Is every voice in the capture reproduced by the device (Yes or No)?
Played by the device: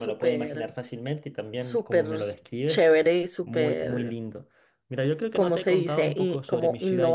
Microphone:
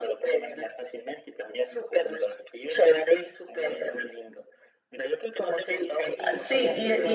No